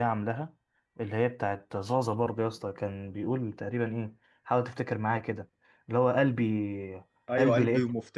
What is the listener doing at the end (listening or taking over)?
taking over